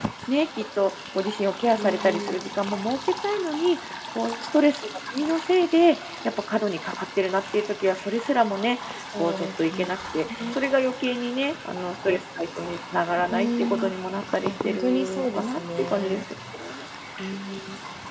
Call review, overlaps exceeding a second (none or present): present